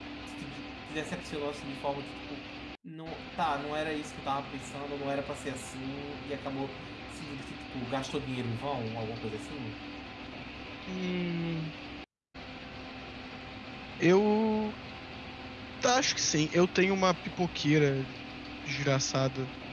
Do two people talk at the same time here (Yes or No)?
No